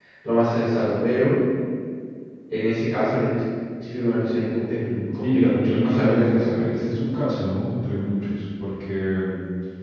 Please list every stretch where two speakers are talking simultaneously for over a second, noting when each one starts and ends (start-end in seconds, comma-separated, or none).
5.2-6.8